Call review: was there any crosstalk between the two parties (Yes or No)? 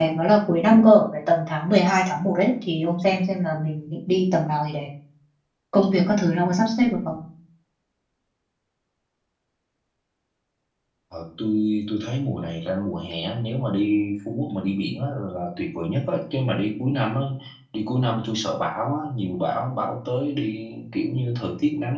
No